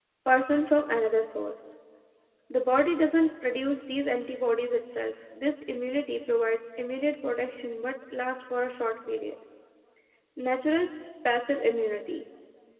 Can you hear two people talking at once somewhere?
No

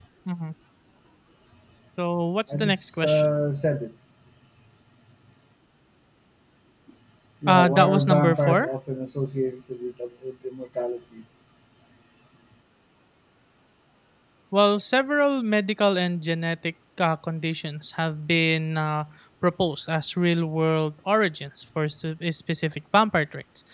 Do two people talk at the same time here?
Yes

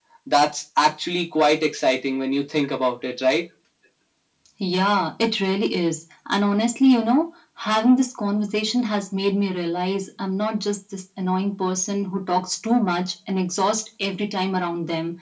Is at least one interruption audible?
No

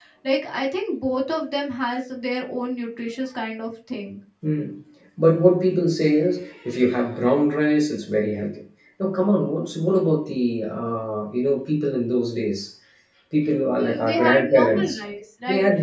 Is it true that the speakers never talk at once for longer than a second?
No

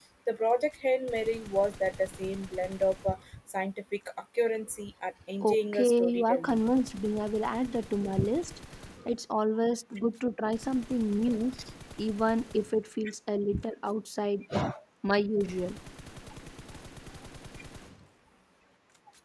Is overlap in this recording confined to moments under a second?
No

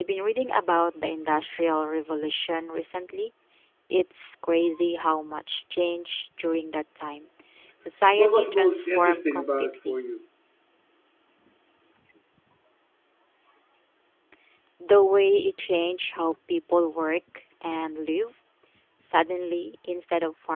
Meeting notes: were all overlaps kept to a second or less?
No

